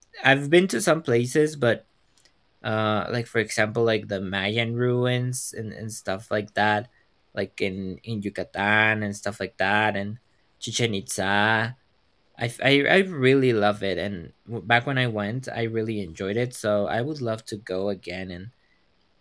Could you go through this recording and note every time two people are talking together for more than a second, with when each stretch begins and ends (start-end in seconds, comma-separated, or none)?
none